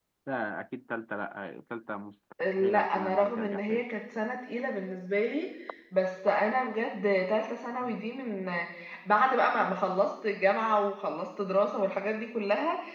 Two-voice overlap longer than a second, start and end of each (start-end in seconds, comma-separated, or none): 2.4-3.8